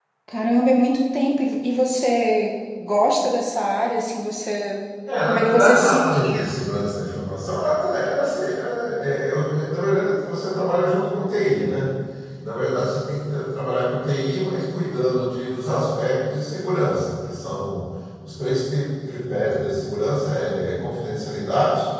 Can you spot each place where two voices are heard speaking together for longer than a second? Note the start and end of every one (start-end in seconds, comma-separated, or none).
5.2-6.5